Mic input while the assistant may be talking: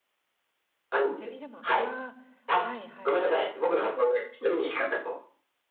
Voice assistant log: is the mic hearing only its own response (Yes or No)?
No